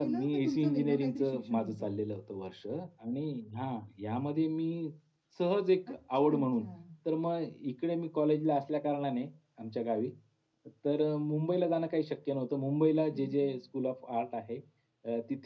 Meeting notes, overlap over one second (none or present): present